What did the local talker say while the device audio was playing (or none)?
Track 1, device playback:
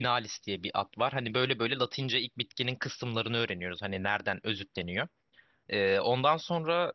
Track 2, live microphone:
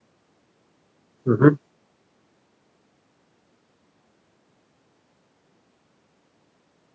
Hı hı.